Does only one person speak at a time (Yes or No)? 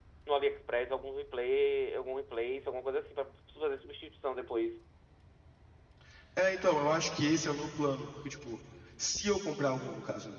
Yes